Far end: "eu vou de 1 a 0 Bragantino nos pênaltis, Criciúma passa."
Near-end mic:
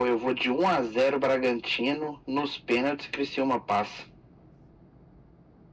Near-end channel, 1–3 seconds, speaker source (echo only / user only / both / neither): echo only